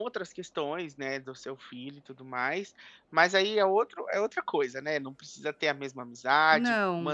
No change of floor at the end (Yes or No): Yes